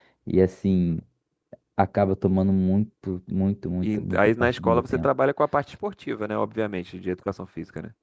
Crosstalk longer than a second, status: present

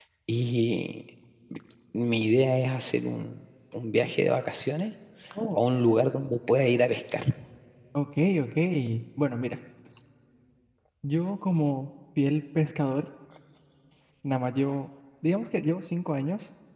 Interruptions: none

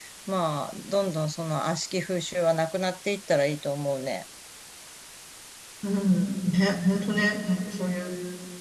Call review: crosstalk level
none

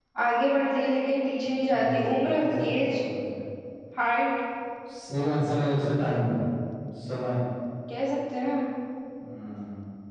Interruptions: present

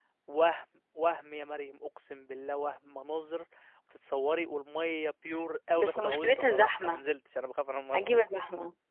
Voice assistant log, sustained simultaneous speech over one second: present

